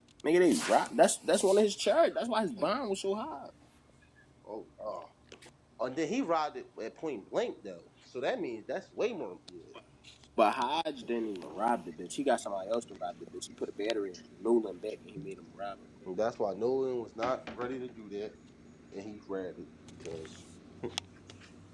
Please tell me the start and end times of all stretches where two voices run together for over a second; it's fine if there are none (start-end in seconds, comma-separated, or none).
none